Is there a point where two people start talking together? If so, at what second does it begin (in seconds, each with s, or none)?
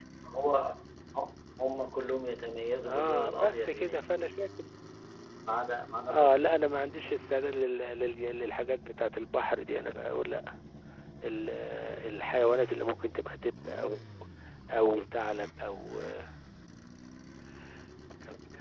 2.9 s